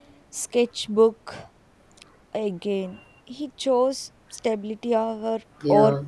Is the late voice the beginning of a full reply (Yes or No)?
Yes